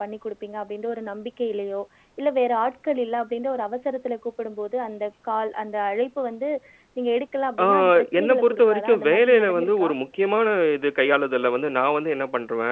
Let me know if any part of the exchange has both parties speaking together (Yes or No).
Yes